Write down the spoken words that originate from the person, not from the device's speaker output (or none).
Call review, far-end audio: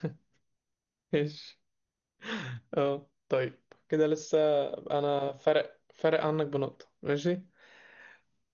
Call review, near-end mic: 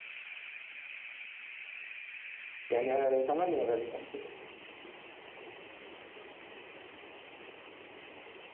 يعني آه تمانية غالبا